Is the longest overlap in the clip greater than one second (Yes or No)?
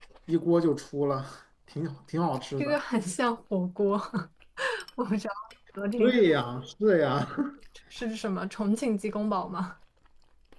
No